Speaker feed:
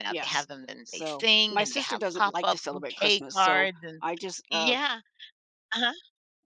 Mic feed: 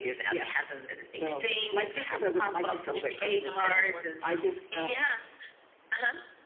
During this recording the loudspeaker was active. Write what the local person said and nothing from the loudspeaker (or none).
and see how that works out.